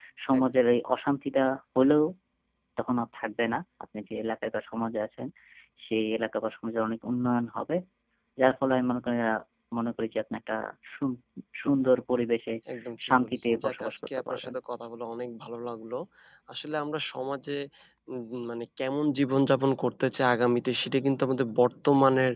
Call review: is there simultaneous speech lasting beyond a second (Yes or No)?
Yes